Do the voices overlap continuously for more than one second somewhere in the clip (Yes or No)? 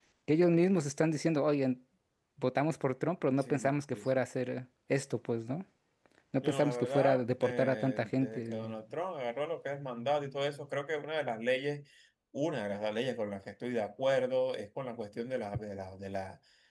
Yes